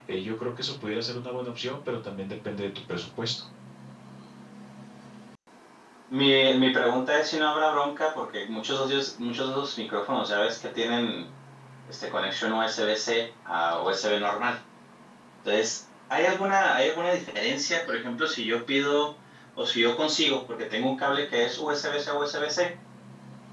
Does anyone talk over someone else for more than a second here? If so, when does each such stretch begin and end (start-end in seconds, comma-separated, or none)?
none